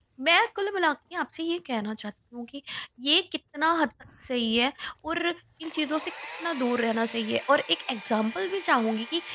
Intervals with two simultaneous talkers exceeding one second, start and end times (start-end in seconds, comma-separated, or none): none